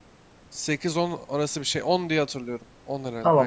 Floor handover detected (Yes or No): Yes